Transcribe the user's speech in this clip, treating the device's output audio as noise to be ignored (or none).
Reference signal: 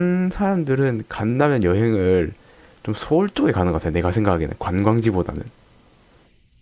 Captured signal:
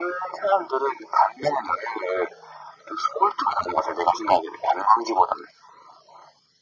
none